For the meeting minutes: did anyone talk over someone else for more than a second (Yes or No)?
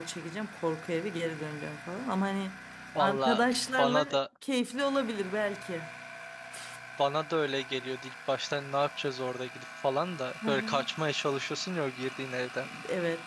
No